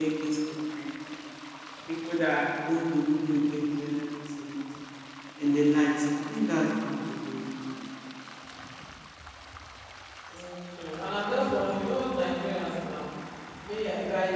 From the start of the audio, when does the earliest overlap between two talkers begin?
none

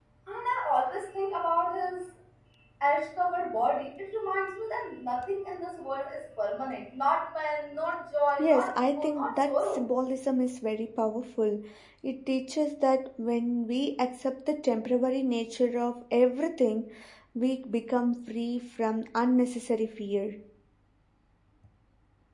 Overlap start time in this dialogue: 8.4 s

